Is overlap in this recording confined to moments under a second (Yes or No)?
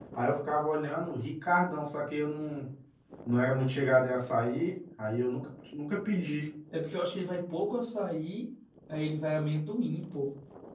Yes